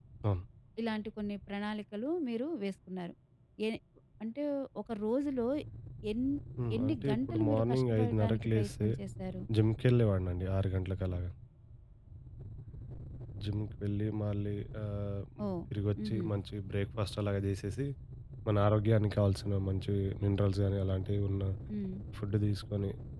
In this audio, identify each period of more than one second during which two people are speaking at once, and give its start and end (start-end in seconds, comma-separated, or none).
6.8-8.9